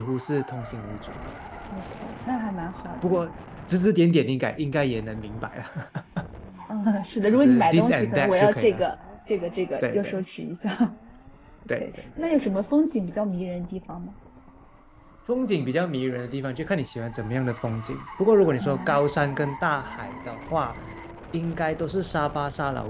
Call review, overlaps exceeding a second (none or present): present